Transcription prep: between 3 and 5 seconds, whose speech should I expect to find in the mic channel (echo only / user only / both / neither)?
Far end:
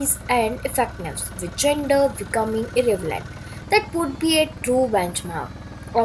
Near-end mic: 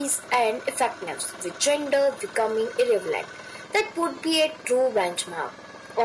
echo only